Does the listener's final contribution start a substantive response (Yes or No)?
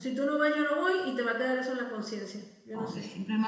Yes